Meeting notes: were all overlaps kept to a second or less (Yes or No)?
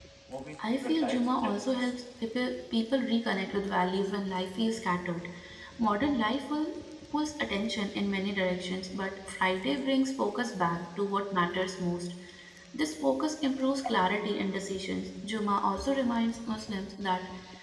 No